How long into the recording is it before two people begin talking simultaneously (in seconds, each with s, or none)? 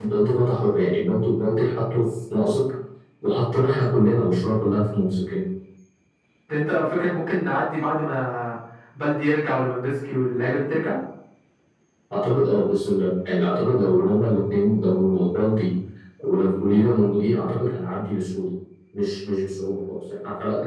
none